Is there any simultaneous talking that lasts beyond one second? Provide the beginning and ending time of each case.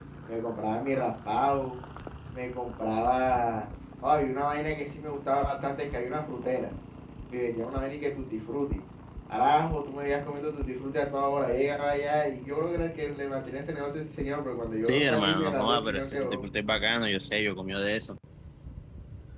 14.8-16.4

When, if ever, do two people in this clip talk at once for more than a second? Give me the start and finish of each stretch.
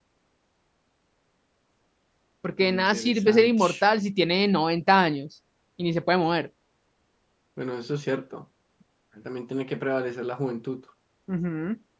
2.6-3.8

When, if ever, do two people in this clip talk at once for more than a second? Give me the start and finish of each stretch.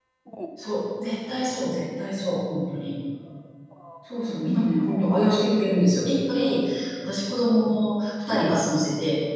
none

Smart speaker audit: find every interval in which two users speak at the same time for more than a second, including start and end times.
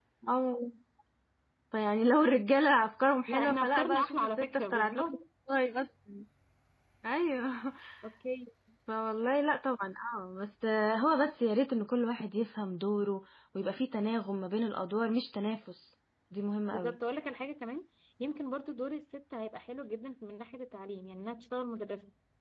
3.3-5.0

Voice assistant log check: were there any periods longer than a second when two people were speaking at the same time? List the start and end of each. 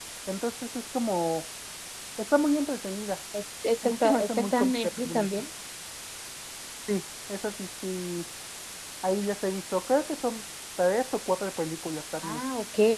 3.8-5.3

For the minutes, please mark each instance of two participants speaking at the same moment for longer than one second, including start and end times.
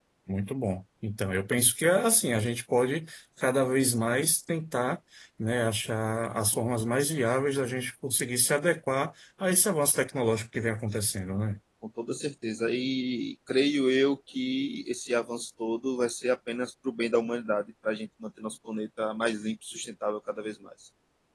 none

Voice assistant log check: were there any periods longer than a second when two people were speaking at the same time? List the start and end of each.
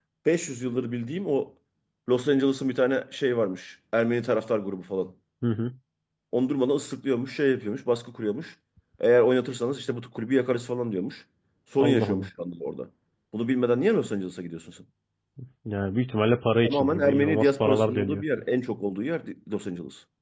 16.6-18.2

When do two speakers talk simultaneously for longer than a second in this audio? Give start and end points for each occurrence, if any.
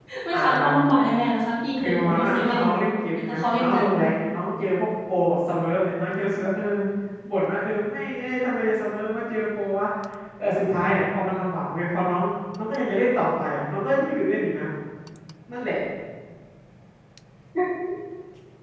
1.8-3.8

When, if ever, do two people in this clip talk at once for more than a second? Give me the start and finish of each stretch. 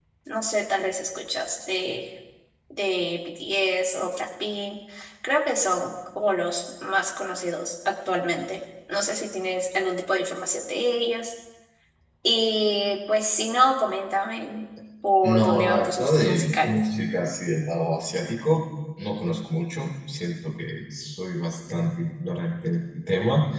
15.2-16.7

